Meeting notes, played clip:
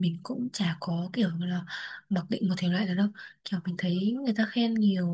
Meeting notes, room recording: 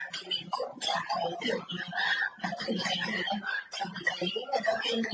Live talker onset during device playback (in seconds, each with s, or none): none